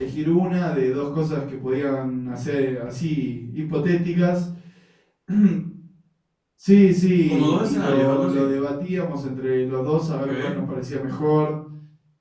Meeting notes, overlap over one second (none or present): present